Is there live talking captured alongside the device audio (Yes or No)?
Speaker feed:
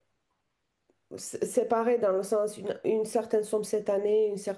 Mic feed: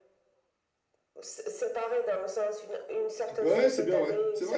Yes